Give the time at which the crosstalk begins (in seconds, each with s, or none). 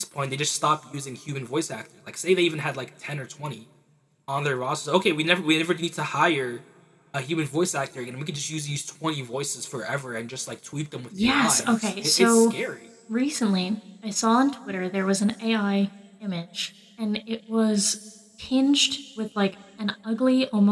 11.1 s